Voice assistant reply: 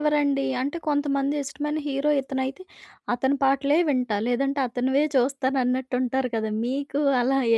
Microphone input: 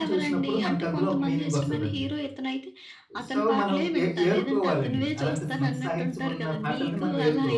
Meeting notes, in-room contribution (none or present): present